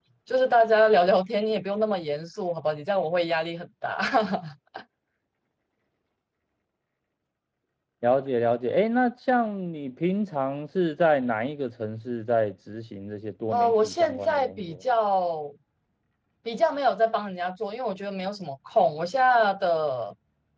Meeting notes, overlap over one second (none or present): present